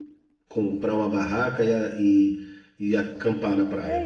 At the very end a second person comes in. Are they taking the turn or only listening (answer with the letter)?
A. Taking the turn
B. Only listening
A